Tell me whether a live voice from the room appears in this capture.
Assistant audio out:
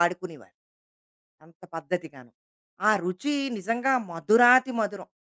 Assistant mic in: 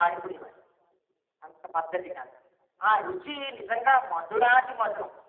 No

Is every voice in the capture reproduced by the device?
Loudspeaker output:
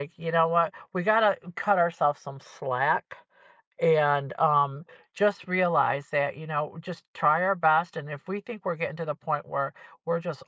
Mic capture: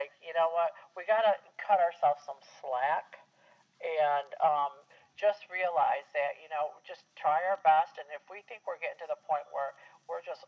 Yes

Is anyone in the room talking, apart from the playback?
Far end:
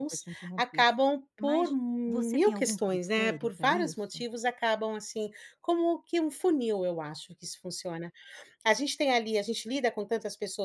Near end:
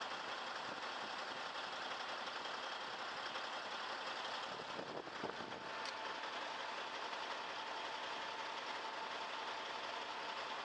No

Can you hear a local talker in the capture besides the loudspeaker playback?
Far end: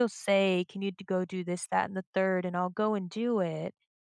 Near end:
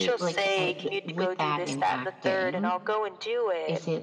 Yes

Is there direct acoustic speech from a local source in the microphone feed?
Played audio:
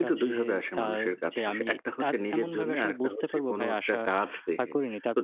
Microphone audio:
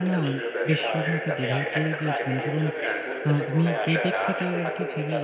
Yes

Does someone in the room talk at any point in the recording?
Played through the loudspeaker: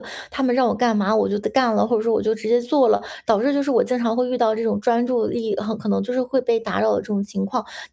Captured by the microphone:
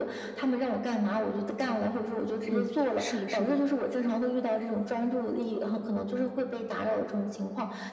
Yes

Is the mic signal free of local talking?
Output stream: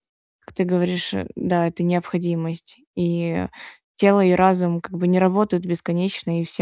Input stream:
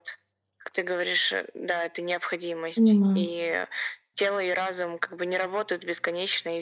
No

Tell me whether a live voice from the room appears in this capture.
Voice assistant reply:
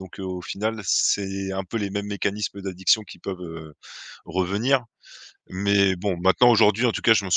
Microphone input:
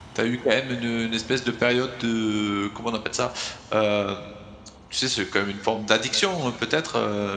Yes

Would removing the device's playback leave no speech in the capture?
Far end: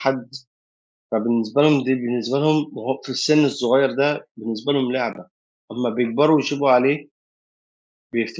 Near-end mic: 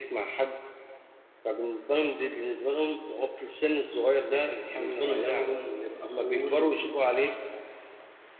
No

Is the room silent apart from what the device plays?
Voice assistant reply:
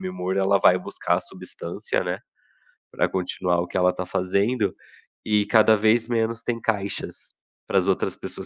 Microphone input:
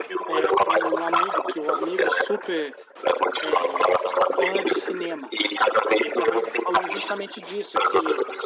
No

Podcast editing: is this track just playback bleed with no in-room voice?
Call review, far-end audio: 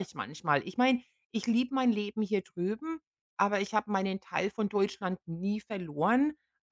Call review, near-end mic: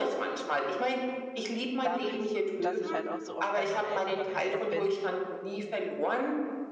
No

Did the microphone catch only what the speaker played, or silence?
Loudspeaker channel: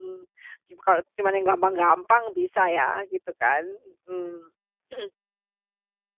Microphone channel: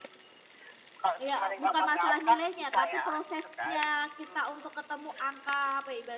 No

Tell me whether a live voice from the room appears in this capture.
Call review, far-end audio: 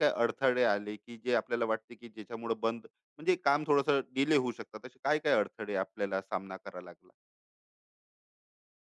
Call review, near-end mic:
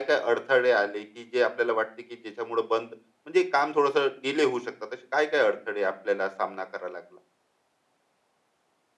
No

